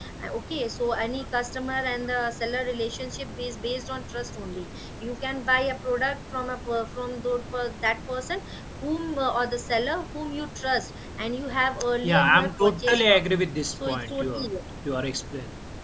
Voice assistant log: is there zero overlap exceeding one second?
No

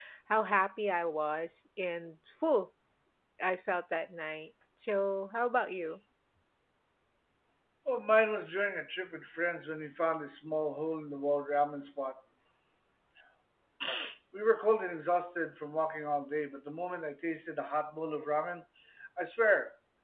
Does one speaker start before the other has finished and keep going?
No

